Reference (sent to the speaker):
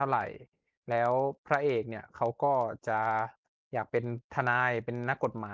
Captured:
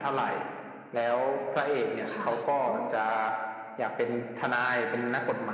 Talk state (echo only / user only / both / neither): both